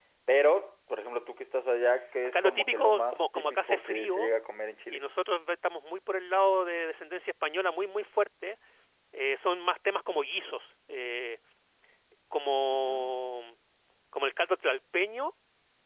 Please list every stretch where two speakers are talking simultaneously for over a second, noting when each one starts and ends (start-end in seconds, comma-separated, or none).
2.2-4.3